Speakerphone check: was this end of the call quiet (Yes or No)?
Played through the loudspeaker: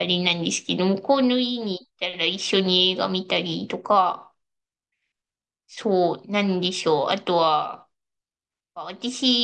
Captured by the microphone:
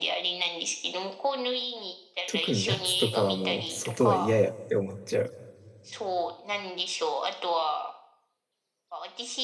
No